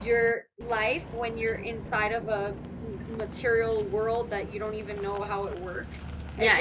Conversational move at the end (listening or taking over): taking over